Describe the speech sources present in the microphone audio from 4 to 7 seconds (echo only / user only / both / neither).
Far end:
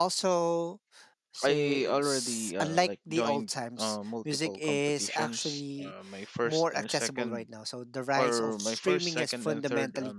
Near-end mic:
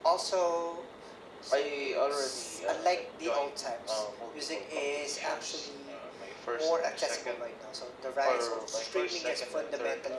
echo only